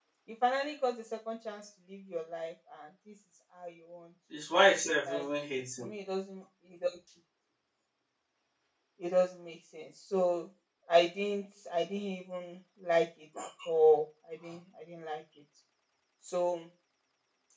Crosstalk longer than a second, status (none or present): none